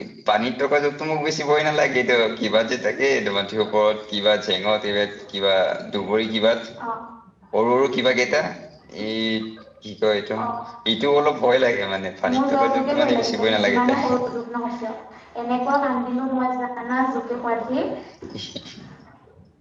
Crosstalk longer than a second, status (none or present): present